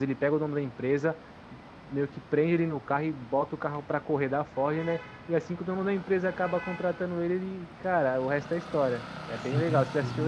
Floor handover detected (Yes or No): Yes